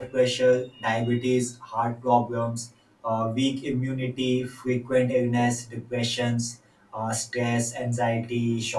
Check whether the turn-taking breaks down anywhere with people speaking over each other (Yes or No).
No